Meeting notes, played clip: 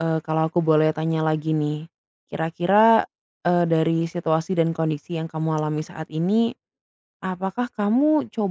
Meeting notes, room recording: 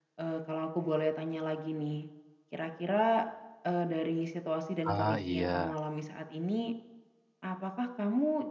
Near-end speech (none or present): present